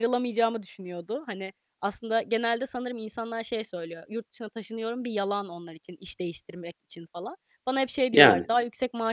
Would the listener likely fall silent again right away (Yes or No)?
Yes